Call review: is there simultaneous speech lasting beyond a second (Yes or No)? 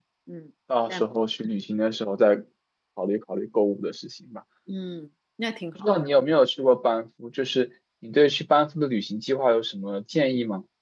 No